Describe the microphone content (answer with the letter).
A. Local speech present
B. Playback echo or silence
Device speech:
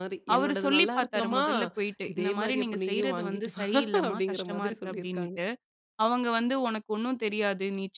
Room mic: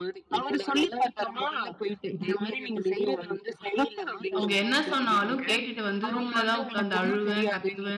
A